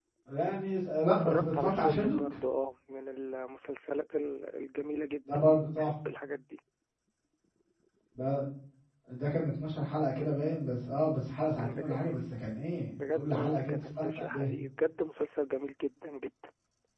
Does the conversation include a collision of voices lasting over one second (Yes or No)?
Yes